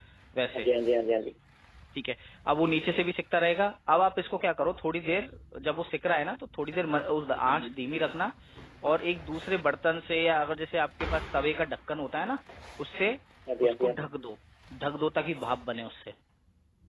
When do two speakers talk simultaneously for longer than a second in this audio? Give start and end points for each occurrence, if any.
none

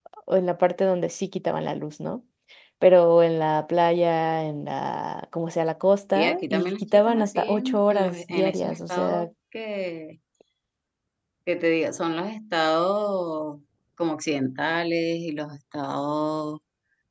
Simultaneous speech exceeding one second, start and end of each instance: 6.2-9.3

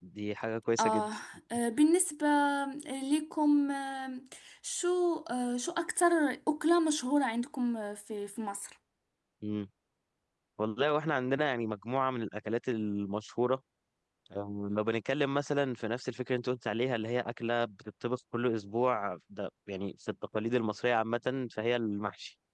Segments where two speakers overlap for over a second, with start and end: none

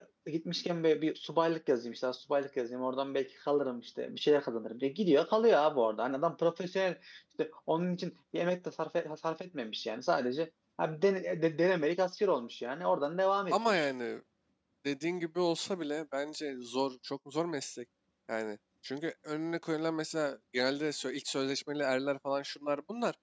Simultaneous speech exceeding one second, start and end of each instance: none

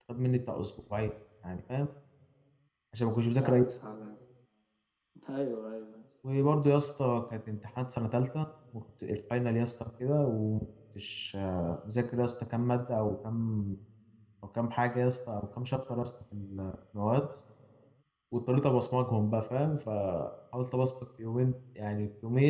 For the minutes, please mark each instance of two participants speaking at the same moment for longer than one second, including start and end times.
none

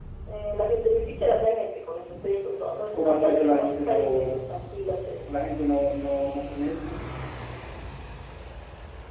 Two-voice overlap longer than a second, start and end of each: 2.9-4.2

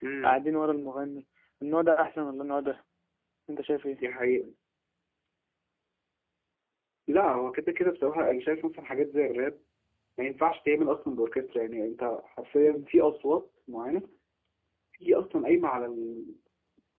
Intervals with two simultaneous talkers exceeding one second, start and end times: none

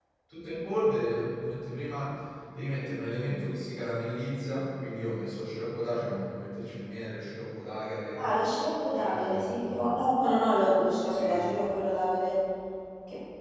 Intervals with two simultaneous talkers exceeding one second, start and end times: 8.9-10.2

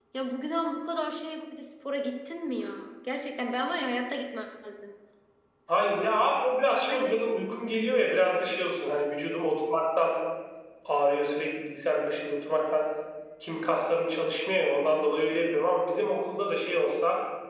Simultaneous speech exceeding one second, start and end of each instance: none

